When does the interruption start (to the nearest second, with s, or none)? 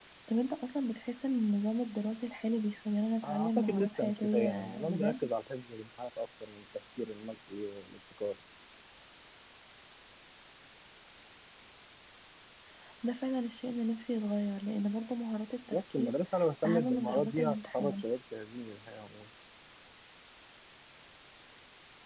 3 s